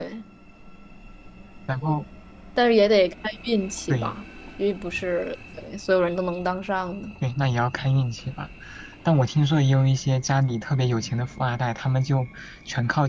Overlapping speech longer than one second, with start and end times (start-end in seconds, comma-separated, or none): none